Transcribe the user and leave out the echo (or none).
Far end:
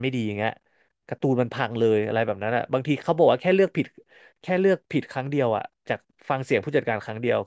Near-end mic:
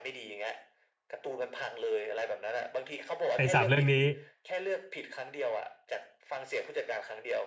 ไอ้สามเรื่องนี้